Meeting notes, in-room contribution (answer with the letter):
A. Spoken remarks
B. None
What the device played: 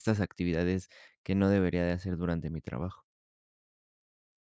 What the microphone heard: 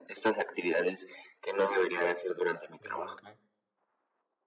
A